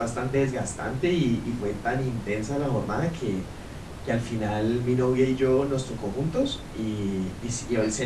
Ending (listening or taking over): listening